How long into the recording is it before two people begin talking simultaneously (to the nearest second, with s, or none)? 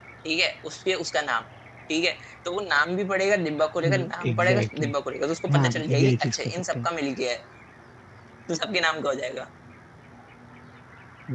4 s